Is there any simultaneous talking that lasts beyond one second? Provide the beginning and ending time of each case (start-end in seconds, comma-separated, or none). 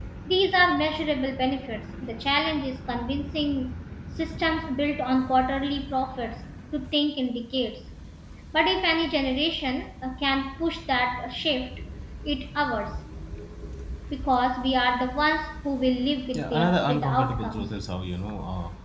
16.3-17.7